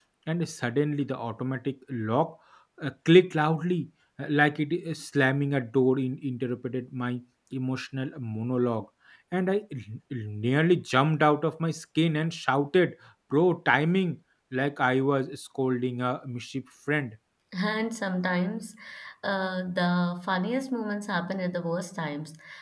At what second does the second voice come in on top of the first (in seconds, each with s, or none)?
none